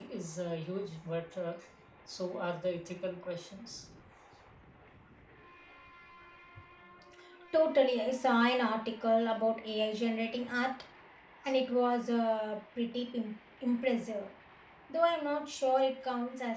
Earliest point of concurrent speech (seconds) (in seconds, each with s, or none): none